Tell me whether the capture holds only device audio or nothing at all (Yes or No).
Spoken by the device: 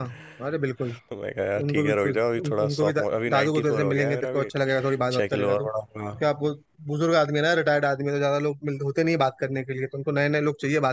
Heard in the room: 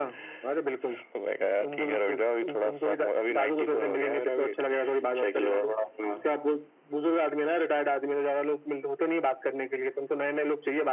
Yes